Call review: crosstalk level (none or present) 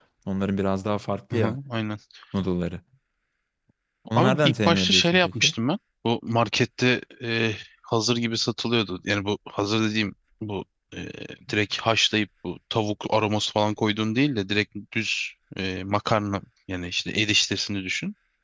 present